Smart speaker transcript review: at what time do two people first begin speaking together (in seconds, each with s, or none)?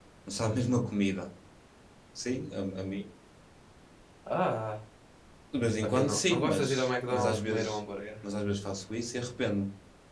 5.8 s